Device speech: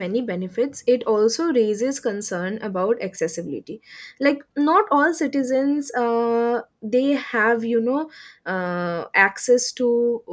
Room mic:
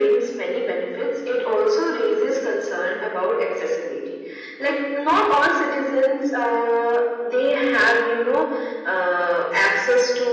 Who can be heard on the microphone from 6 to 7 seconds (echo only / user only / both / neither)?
echo only